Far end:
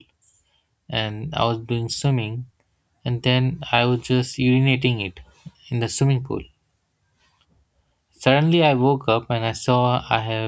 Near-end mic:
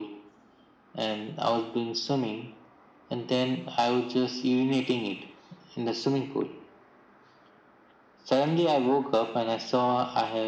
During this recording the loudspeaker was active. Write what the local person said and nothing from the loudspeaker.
none

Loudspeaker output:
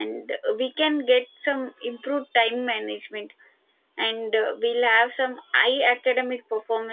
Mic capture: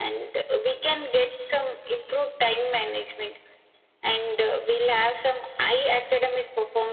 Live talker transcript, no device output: none

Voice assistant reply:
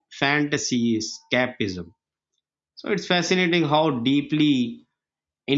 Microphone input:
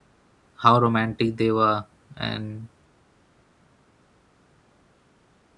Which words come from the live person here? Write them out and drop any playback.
how romantic they were and

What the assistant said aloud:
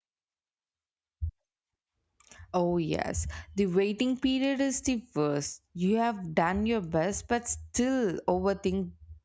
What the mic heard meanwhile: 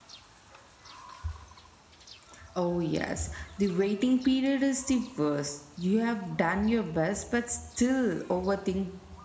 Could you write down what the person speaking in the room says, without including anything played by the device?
none

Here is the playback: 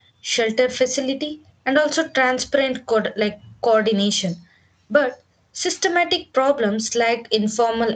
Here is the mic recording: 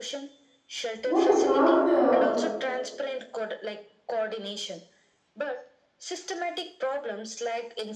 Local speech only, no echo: What about uh,

